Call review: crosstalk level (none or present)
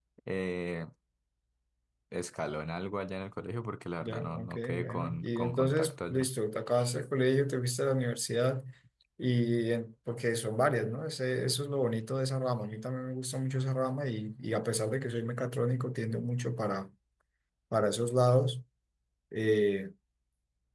present